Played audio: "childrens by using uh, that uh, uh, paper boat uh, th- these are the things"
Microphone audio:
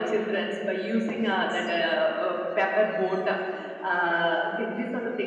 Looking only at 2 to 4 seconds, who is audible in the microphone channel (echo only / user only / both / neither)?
echo only